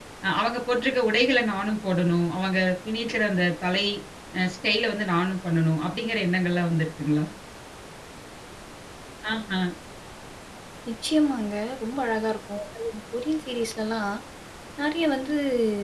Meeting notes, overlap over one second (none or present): none